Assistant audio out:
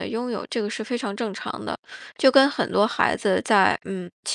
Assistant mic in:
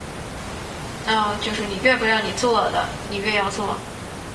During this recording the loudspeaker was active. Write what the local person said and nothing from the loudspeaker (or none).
嗯、就是你越不让你做的，你越要做。